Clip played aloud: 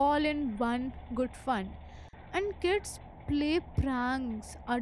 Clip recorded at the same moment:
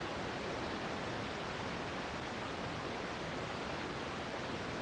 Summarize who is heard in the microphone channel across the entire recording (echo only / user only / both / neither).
neither